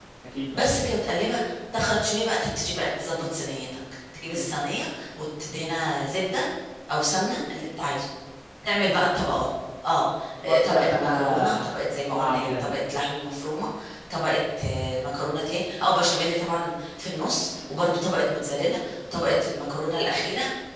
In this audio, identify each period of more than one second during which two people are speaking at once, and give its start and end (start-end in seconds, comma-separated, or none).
10.4-11.7